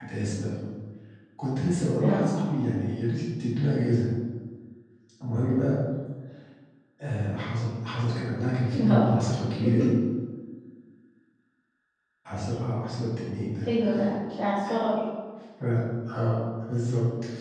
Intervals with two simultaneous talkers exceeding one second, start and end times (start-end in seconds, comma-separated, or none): none